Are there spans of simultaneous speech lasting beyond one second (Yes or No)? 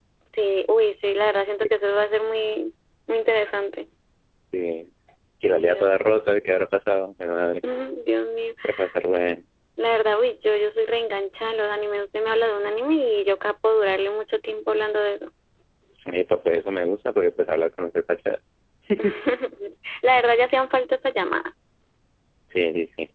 No